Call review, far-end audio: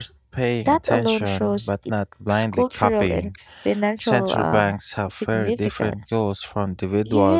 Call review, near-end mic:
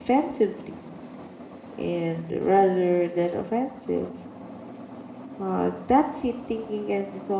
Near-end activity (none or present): present